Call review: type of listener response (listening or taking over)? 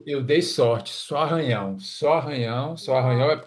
listening